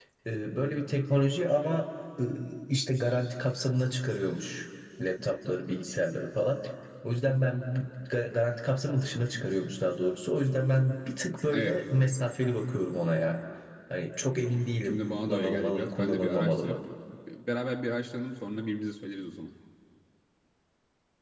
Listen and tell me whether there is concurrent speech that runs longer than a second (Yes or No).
Yes